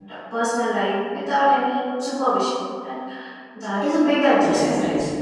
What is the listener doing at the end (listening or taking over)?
taking over